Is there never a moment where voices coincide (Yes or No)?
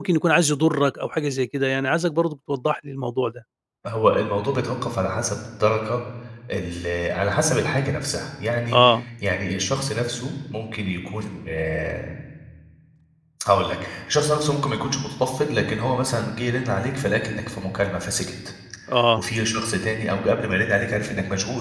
Yes